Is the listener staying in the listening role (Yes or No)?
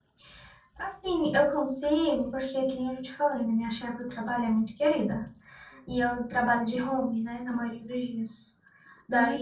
Yes